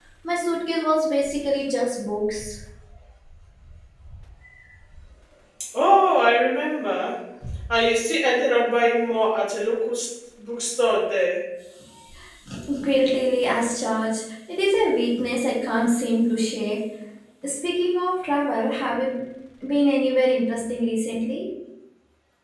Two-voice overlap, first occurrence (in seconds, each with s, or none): none